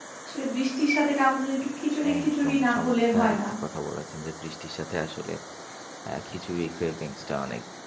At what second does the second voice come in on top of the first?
2.0 s

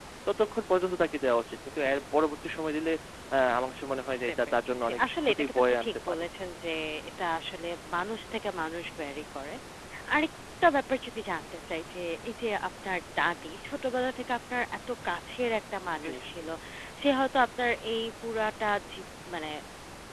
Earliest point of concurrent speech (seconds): 4.3 s

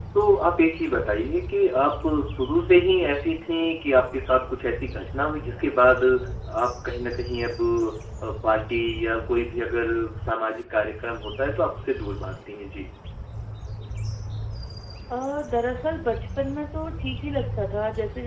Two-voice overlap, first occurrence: none

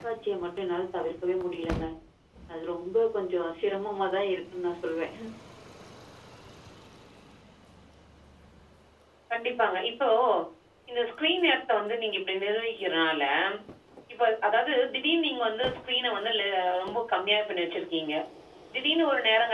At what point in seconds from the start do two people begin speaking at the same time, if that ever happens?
none

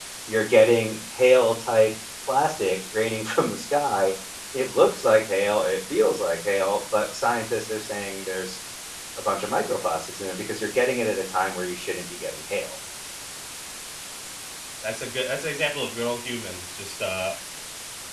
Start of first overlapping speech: none

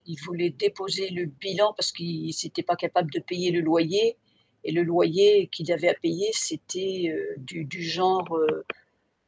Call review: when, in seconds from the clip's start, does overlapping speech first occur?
none

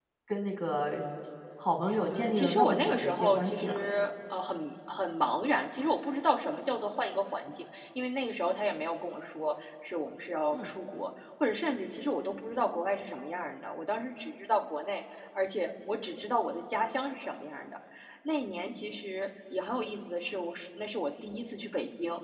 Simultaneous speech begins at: 2.1 s

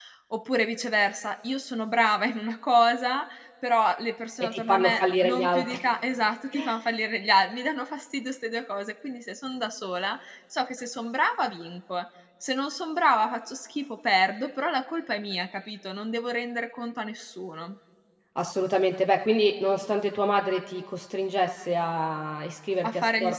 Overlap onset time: 4.4 s

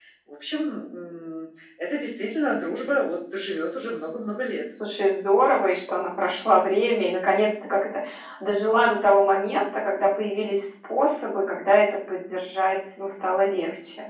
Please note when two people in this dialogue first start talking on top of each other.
none

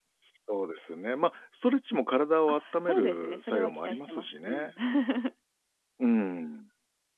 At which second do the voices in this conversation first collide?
2.6 s

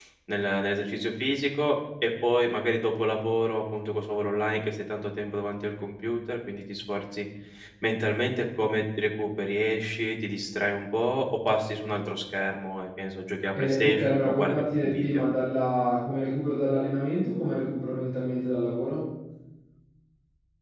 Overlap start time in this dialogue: 13.6 s

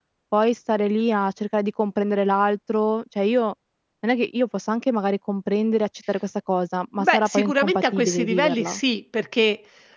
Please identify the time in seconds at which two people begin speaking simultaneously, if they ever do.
7.0 s

